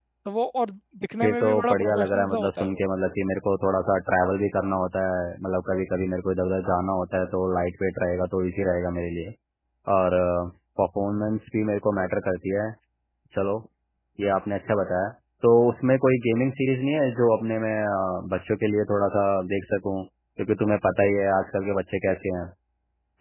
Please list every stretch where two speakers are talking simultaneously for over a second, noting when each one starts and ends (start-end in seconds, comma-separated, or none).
1.2-2.8